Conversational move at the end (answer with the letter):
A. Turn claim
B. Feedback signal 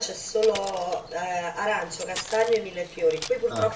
B